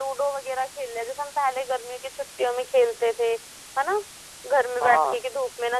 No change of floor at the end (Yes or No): Yes